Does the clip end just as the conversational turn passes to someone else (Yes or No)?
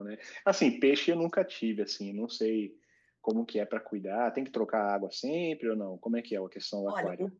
Yes